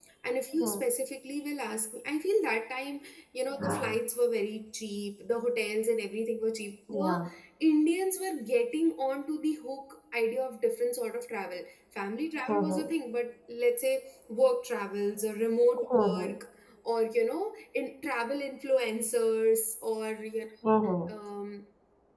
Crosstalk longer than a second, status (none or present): none